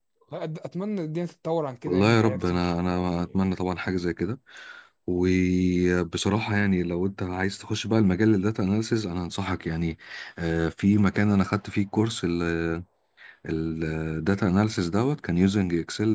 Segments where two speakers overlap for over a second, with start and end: 1.9-3.3

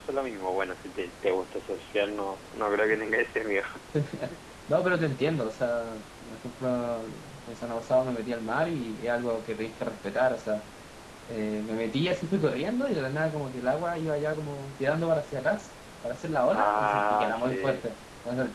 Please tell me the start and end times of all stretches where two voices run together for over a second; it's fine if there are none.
16.5-17.8

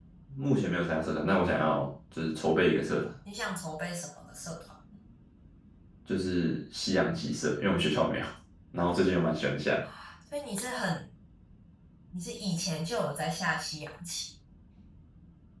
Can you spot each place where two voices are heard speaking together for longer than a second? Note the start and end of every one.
none

